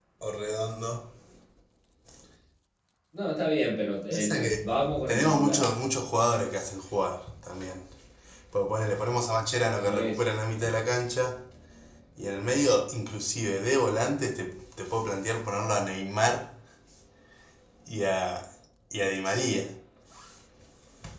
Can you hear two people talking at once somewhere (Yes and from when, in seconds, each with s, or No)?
Yes, from 4.1 s